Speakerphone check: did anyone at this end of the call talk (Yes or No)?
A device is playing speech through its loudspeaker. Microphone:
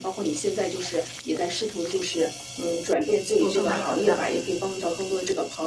Yes